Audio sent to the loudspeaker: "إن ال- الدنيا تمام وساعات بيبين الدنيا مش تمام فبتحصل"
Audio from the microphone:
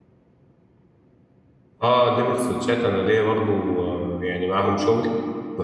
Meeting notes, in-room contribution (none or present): present